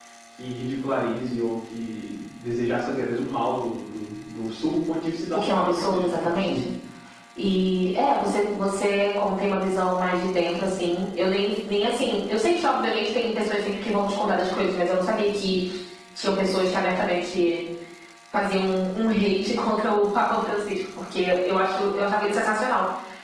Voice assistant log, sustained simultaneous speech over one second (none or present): present